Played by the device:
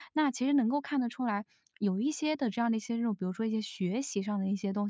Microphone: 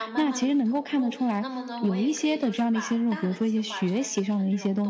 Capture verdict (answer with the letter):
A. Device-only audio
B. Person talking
B